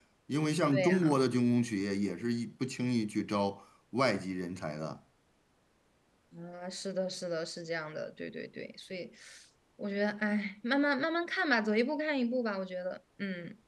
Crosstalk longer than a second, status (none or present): none